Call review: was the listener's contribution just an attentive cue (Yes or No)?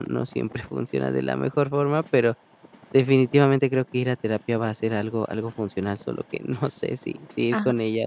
No